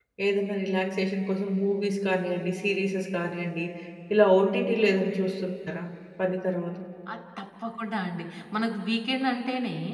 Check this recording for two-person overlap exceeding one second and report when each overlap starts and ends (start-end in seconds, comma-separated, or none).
none